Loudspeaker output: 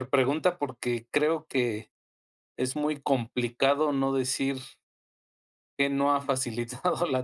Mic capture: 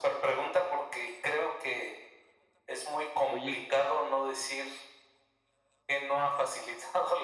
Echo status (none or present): present